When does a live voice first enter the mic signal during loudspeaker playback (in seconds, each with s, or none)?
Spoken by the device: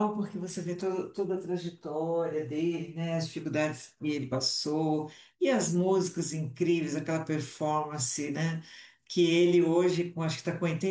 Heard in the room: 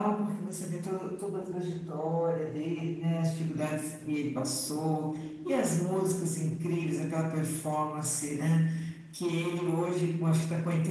none